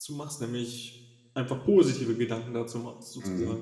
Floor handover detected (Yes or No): Yes